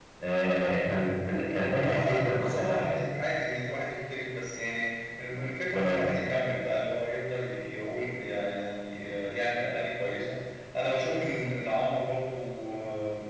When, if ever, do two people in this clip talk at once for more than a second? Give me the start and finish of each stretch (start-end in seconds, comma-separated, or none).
1.5-3.0